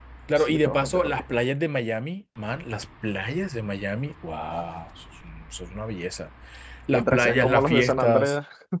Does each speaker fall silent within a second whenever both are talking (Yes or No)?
No